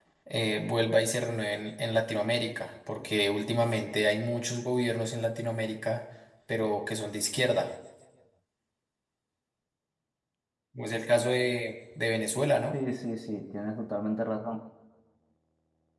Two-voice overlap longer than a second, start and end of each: none

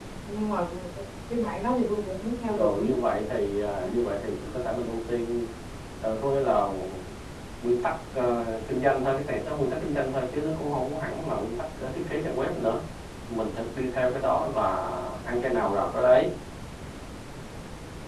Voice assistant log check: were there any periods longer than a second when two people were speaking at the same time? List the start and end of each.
none

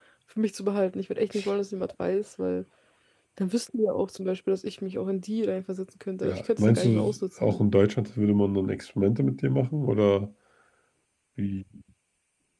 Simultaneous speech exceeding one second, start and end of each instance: 6.2-7.6

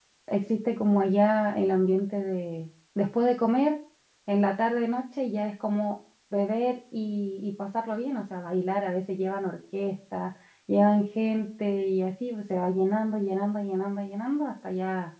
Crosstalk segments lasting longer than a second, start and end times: none

